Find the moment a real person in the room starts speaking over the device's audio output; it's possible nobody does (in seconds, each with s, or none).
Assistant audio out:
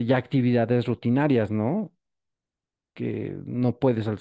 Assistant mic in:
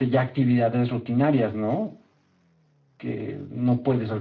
none